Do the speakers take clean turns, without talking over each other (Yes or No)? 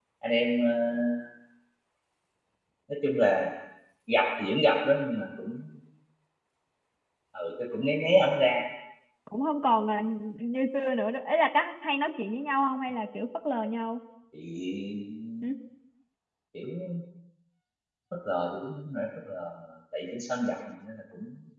Yes